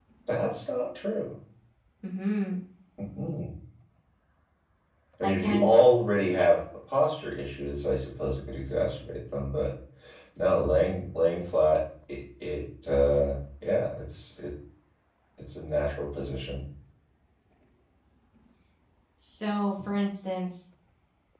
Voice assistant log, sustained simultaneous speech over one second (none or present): none